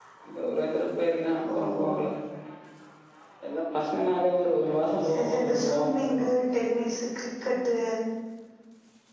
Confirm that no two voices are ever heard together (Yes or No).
No